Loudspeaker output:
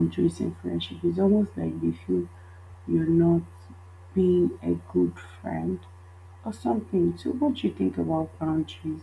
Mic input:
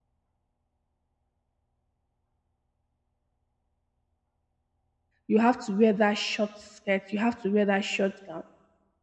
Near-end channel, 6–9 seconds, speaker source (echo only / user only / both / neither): user only